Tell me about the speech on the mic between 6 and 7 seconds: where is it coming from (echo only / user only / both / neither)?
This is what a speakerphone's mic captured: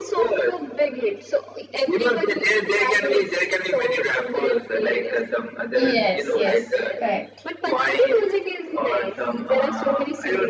both